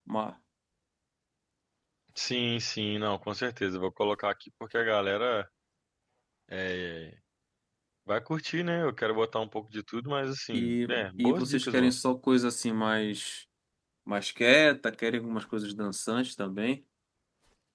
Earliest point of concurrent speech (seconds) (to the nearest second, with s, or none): 11 s